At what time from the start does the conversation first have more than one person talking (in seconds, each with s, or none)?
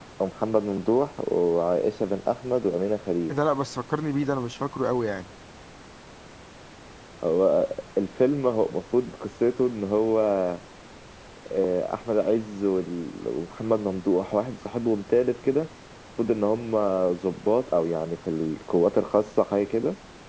none